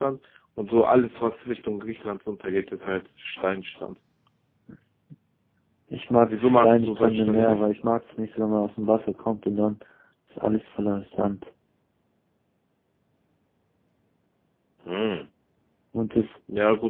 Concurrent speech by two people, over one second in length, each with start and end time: 6.2-7.6

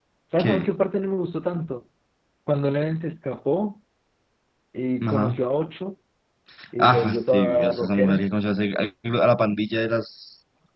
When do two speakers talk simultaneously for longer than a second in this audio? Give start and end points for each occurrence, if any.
6.8-8.2

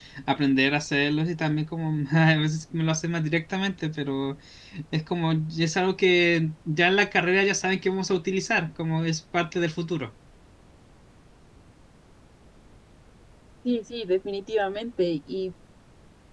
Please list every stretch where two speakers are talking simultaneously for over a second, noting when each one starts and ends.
none

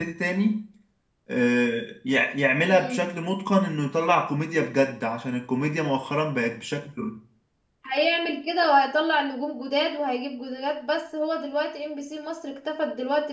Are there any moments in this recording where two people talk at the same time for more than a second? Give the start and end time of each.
none

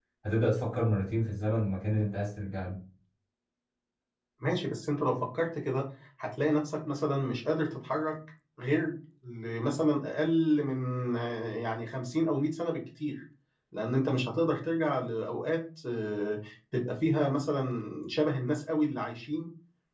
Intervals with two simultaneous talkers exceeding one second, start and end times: none

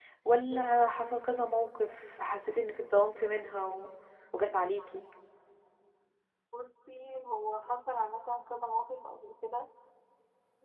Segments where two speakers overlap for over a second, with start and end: none

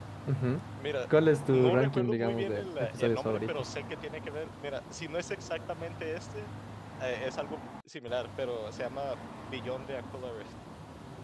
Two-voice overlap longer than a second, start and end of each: 1.5-3.6

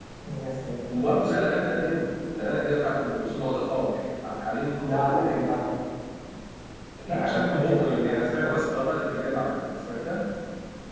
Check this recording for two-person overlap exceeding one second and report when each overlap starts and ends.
7.0-8.6

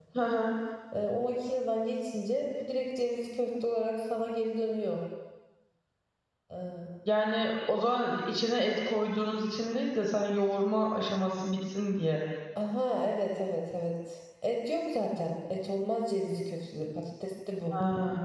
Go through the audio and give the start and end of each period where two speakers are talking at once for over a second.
none

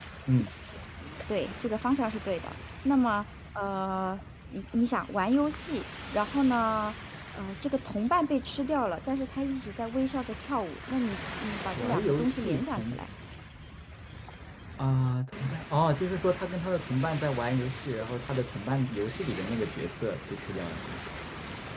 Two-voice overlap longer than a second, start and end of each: 11.8-13.0

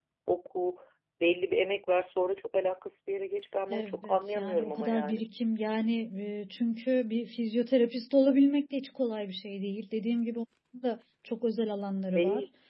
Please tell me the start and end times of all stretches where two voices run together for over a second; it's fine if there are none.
3.7-5.2

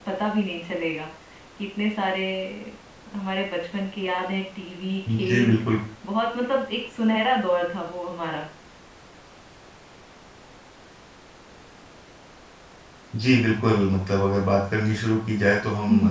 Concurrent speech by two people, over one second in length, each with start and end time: none

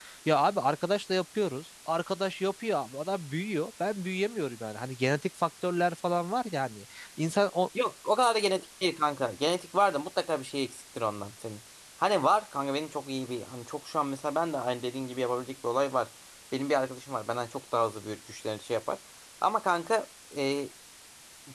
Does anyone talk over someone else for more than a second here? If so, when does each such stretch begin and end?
none

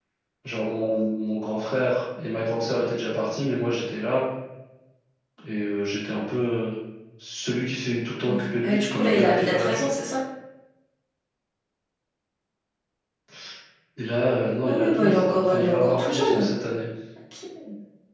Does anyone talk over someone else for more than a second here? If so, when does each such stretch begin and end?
8.2-9.9, 14.7-16.5

